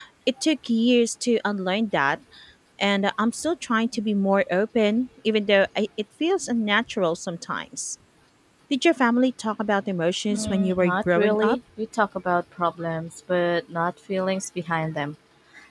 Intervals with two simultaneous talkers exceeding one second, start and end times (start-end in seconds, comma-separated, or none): 10.3-11.6